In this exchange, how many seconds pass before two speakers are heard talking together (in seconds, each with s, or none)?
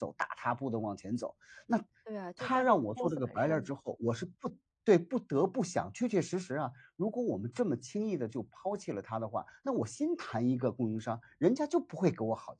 2.4 s